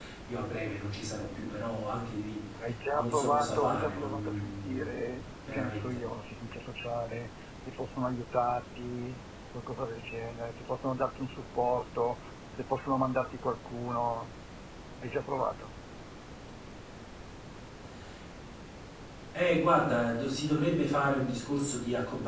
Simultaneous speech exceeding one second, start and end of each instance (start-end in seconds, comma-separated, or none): 2.9-6.0